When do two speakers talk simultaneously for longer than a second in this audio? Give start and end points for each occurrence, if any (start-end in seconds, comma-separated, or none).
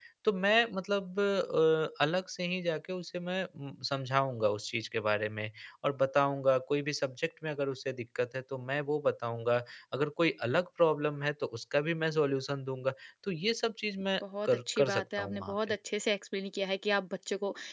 14.4-15.8